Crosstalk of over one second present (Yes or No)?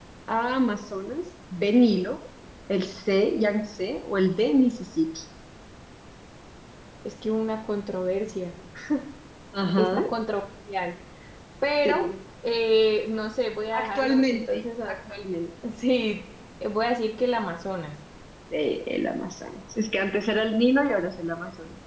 Yes